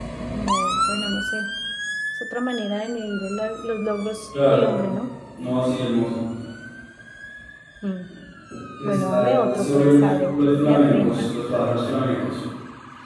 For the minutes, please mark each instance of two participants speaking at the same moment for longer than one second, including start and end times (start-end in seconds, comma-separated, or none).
8.8-11.3